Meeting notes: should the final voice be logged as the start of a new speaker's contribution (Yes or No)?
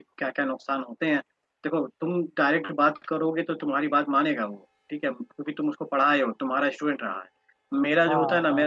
No